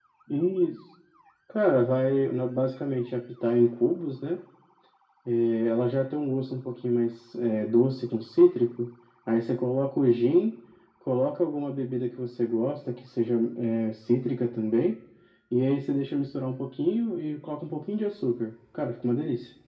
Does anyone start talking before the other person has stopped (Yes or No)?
No